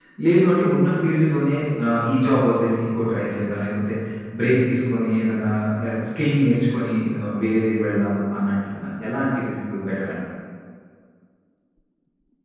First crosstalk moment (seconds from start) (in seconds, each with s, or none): none